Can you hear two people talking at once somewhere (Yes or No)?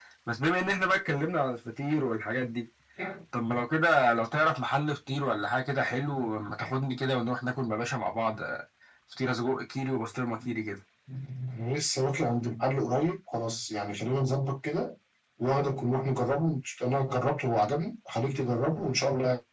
No